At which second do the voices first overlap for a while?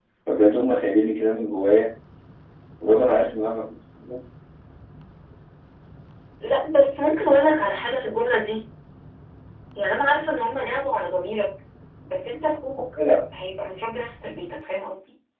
none

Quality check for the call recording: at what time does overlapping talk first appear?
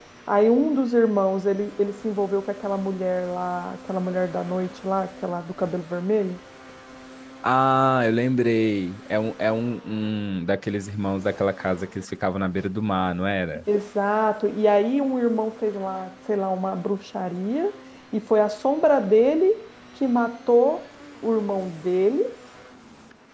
none

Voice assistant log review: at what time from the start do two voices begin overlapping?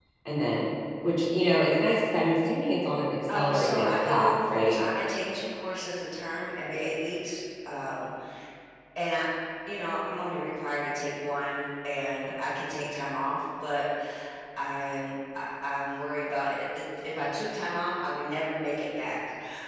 3.3 s

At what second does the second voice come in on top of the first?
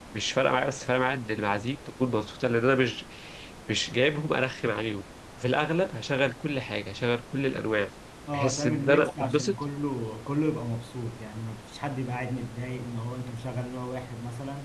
8.3 s

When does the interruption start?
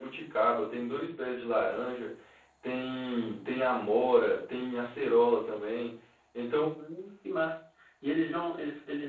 none

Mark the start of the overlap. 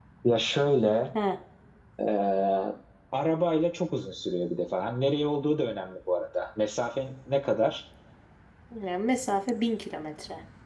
none

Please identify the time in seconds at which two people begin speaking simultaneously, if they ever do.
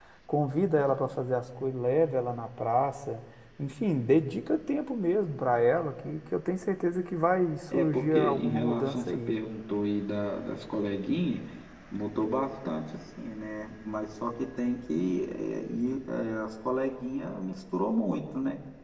7.7 s

